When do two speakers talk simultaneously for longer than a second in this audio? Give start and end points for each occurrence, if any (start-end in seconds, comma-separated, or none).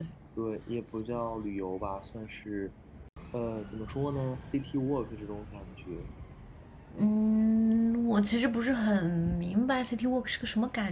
none